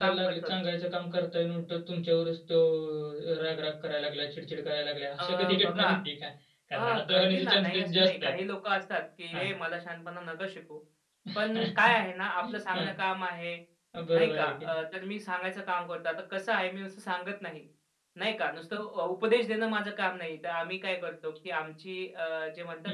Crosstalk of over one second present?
Yes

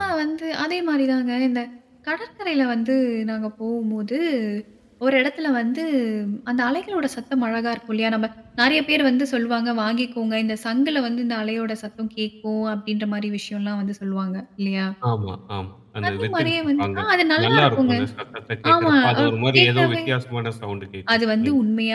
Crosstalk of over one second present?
Yes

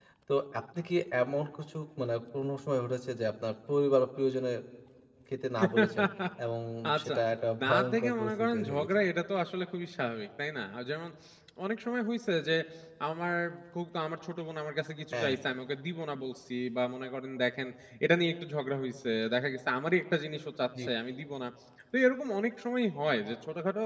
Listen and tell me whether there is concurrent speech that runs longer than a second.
Yes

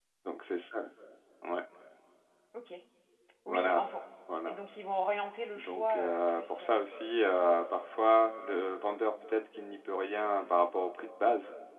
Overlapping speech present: Yes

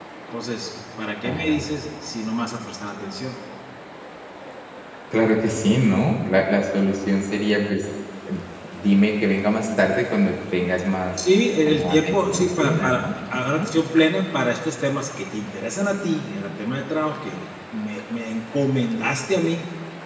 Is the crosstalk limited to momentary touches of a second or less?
No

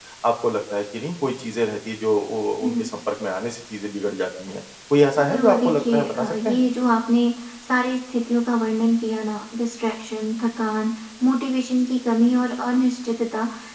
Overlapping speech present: Yes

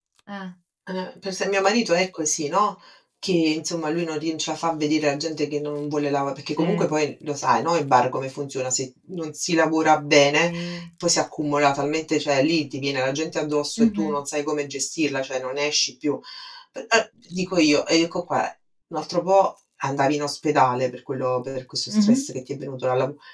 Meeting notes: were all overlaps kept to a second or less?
Yes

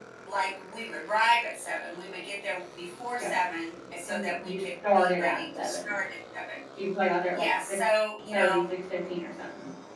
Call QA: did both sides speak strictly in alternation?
No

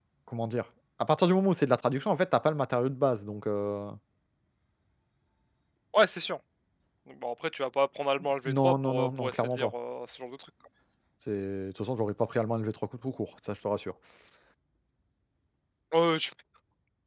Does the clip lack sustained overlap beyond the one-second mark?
No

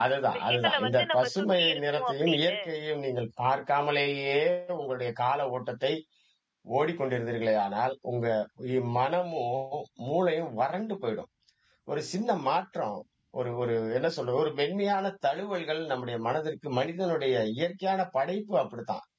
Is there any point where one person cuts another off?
Yes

